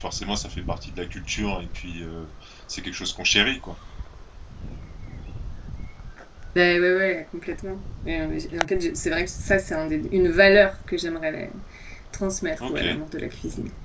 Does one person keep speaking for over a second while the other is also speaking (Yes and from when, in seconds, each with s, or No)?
No